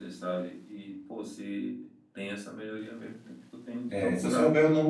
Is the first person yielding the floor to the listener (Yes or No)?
Yes